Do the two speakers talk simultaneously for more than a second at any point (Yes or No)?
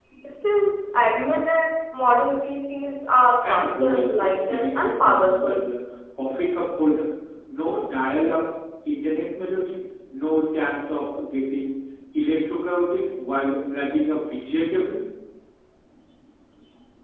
Yes